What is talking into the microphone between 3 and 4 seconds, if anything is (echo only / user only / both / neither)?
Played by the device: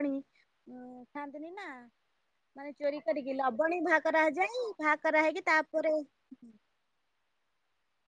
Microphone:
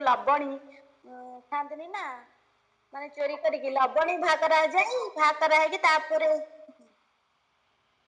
echo only